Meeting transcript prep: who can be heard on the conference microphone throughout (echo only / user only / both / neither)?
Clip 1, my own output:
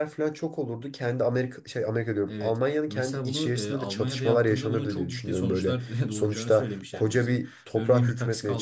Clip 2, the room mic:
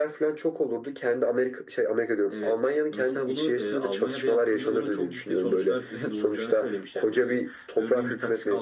echo only